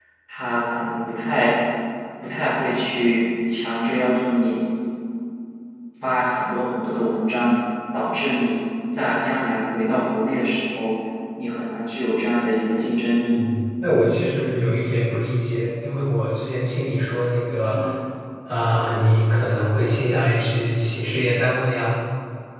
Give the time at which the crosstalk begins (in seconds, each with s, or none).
none